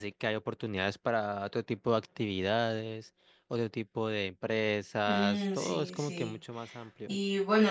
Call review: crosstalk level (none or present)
present